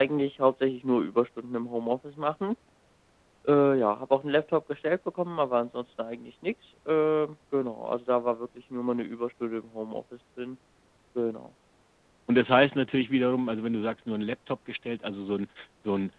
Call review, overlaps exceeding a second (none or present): none